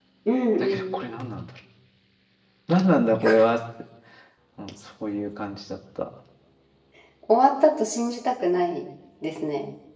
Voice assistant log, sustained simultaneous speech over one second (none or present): none